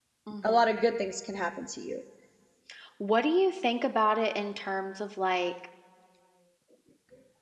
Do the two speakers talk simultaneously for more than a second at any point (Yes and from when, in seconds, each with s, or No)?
No